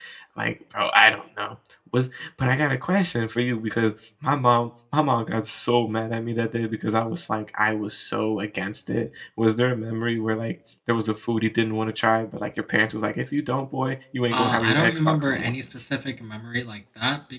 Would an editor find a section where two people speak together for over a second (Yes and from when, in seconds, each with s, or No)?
Yes, from 14.3 s